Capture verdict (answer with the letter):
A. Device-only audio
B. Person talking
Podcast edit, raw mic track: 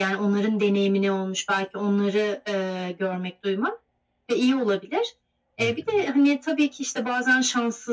B